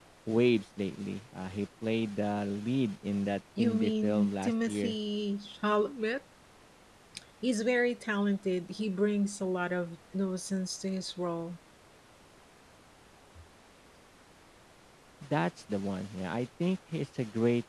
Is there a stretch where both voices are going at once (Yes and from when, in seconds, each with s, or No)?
Yes, from 3.6 s